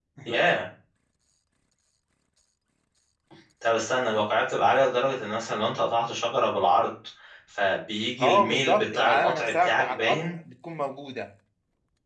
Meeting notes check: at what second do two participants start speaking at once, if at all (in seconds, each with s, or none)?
8.2 s